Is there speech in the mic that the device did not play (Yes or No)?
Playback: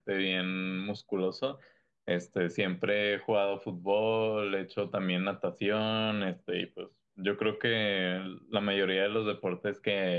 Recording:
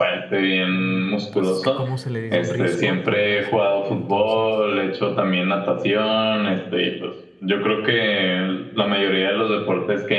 Yes